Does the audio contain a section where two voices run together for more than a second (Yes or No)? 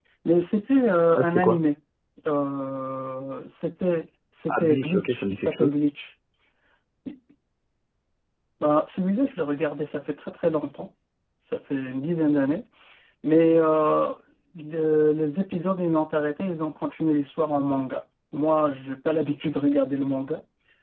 Yes